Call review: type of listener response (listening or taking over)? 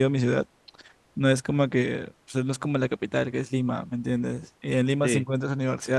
listening